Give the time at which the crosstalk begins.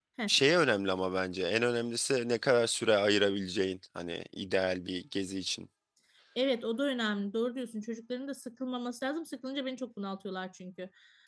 none

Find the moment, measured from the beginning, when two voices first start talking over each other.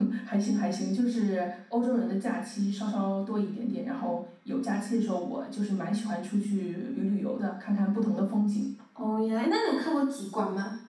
none

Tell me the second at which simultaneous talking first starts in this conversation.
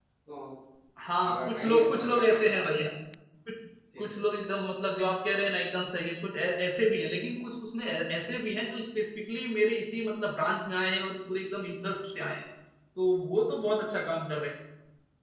1.3 s

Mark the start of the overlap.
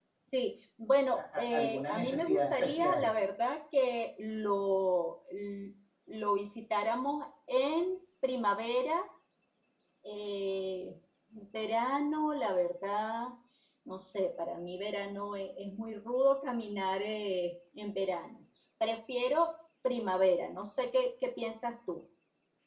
1.1 s

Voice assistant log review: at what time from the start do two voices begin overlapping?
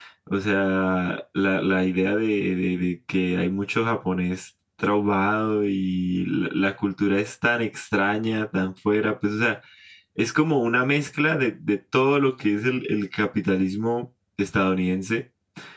none

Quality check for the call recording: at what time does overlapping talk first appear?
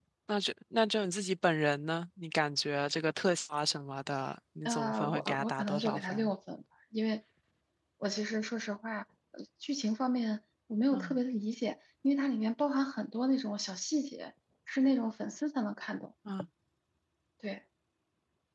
4.6 s

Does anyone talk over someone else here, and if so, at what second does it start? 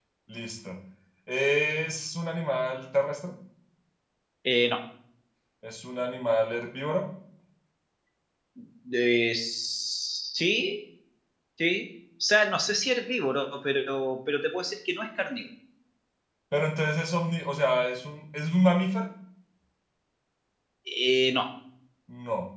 none

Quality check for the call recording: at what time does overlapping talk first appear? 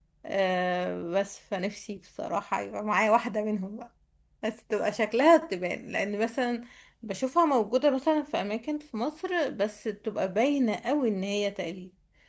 none

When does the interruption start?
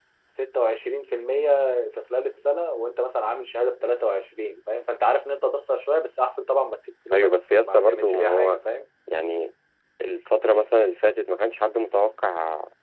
7.1 s

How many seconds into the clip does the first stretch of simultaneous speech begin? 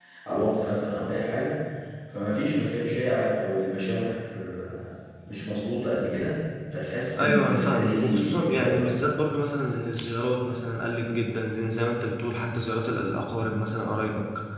7.2 s

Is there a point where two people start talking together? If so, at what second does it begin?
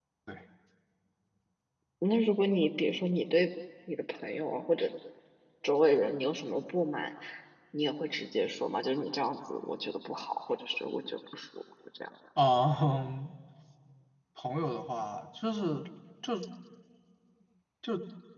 none

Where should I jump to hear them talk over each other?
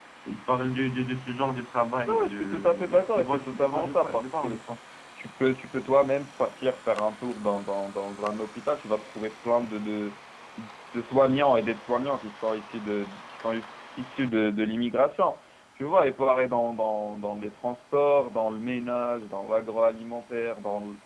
2.0 s

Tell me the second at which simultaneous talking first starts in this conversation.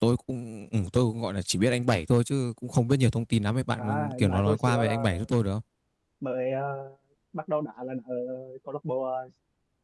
3.8 s

